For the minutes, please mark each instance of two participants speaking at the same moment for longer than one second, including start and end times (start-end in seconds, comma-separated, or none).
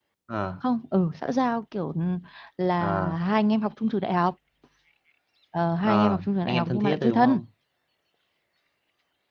5.8-7.4